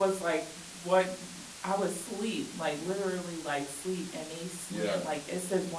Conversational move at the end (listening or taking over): listening